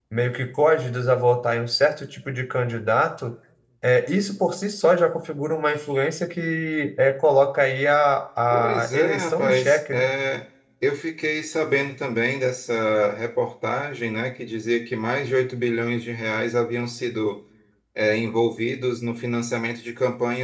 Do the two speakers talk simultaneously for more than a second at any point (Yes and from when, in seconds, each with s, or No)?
Yes, from 8.5 s